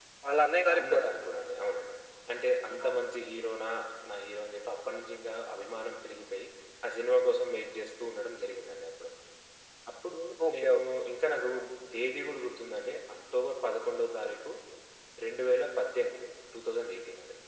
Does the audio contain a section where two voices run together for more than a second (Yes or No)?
No